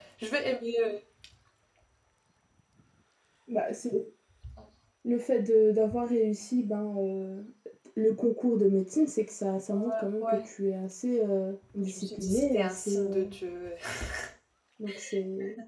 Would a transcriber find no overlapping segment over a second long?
No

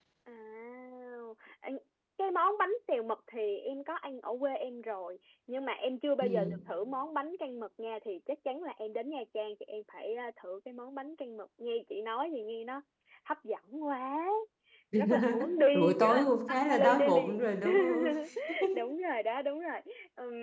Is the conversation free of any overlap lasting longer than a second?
No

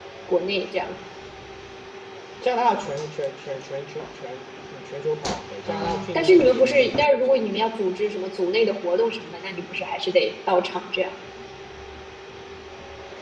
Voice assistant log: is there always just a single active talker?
No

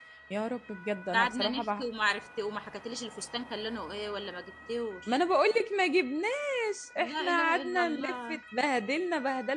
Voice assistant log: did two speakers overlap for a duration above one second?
Yes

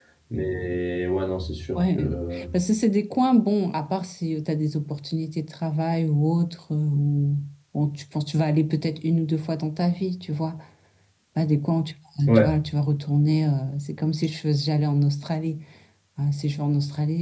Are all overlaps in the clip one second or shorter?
Yes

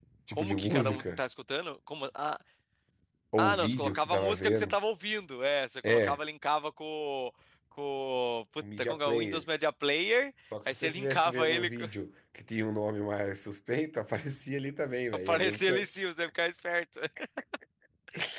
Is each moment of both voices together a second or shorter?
No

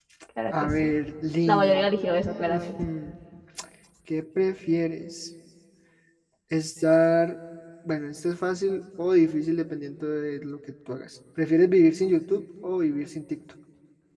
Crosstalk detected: Yes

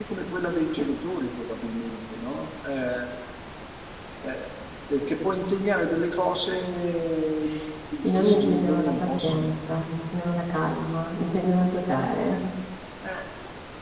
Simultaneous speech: Yes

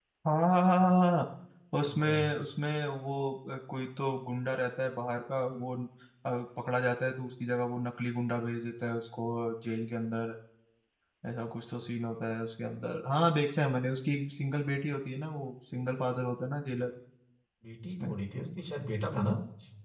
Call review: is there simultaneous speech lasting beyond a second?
No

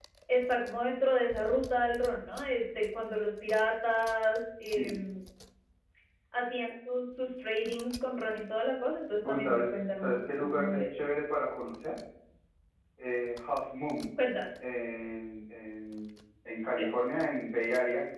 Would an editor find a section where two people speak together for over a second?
Yes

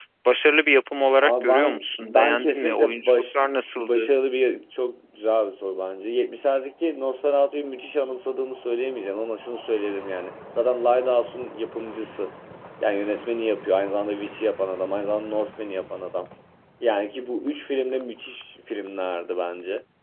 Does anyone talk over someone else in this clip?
Yes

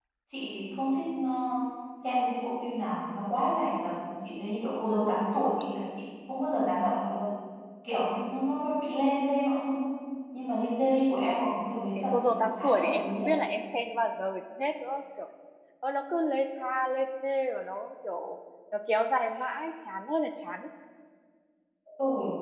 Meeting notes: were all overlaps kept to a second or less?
No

